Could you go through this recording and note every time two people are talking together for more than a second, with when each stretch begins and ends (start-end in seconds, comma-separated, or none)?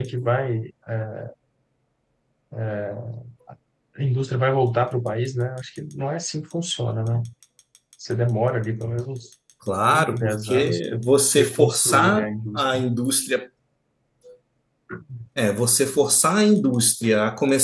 9.9-12.8